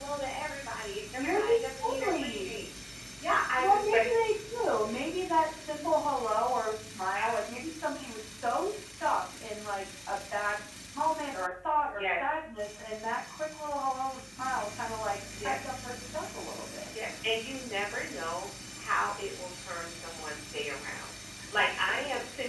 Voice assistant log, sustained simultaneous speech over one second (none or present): present